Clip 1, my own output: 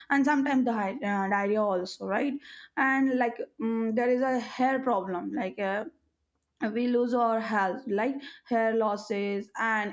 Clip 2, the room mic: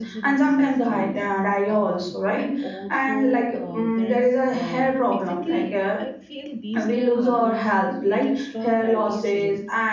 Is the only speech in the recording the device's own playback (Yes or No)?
No